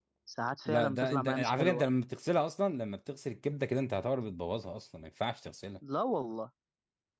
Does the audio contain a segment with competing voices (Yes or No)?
Yes